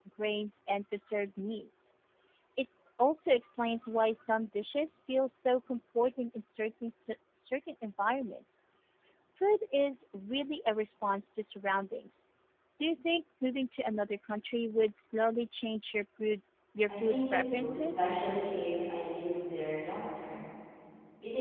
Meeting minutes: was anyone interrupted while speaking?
Yes, from 16.9 s

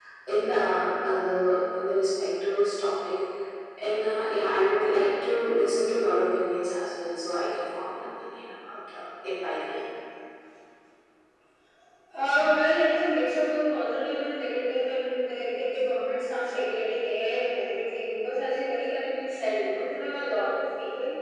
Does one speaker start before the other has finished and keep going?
No

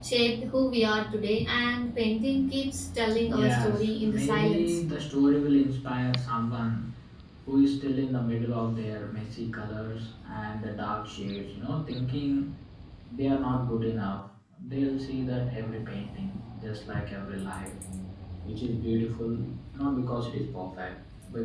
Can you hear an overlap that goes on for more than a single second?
Yes, from 3.1 s

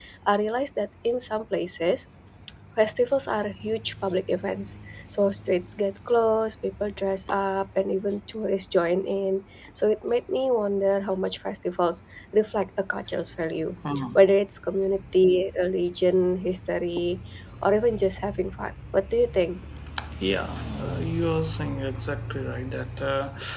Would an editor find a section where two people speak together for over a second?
No

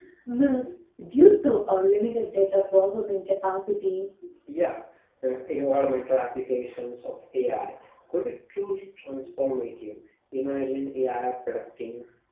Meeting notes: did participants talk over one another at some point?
No

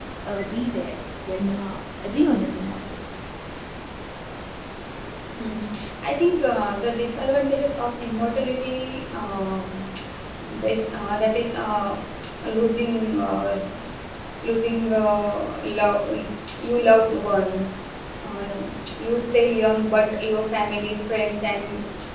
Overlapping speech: No

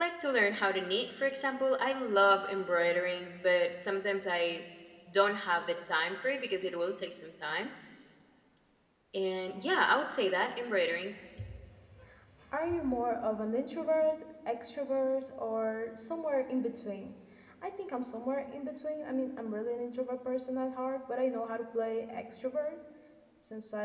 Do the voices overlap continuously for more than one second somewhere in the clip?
No

